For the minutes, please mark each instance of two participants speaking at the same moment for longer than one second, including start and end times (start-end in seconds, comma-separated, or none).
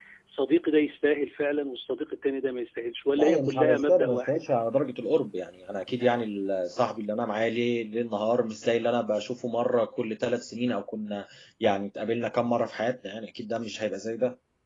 3.1-4.4